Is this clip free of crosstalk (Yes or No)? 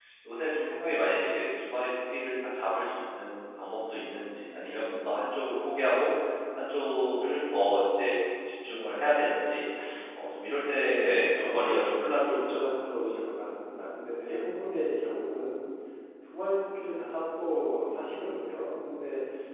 No